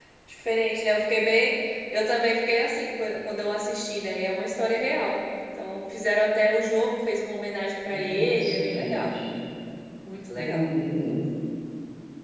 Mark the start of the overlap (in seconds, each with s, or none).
7.9 s